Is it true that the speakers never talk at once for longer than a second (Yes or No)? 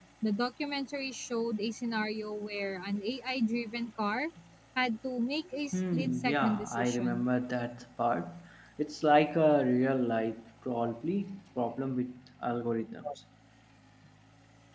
No